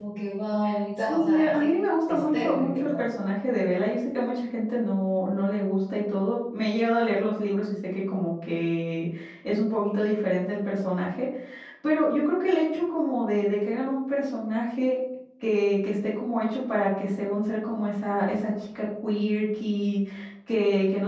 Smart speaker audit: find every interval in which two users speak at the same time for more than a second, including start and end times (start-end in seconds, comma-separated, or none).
1.1-3.1